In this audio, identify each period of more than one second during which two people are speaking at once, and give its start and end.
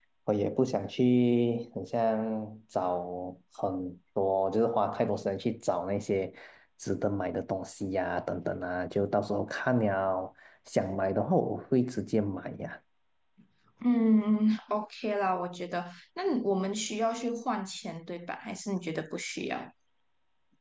none

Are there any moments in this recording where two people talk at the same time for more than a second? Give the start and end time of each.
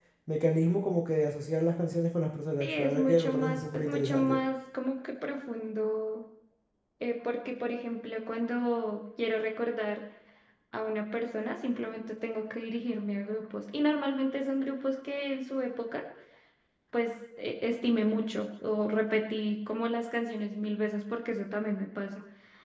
2.6-4.4

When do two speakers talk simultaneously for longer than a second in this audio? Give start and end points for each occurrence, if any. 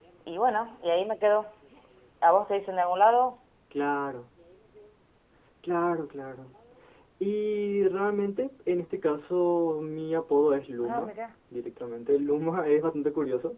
none

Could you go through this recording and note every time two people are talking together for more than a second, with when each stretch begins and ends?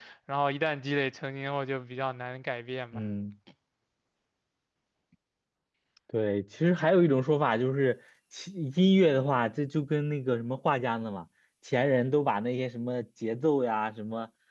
none

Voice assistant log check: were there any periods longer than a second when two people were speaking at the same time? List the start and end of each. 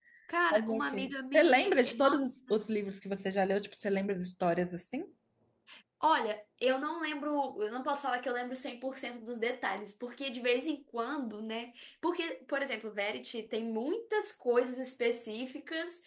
0.5-2.6

